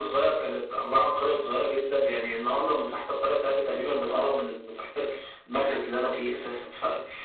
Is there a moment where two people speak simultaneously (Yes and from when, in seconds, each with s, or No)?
No